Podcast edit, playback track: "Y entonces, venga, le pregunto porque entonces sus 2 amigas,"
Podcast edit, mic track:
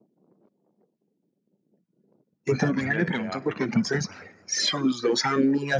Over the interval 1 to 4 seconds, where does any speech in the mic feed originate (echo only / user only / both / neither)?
both